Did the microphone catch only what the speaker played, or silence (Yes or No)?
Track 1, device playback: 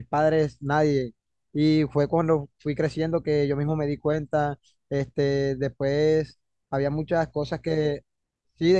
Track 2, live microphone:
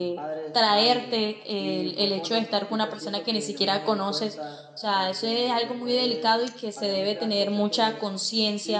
No